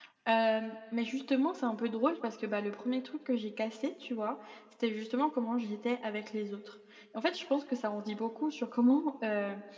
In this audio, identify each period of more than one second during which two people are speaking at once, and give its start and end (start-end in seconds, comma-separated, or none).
none